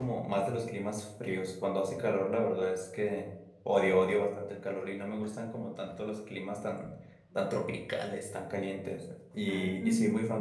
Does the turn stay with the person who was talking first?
Yes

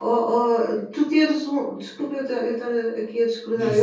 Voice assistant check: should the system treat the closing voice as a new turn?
No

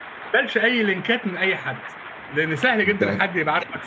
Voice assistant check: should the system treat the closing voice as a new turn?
No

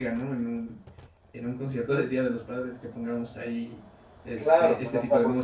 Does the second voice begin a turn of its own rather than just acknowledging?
Yes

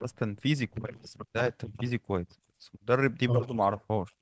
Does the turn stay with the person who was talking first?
Yes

